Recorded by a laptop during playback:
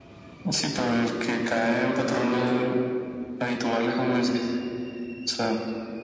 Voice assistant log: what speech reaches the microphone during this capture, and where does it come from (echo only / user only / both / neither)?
echo only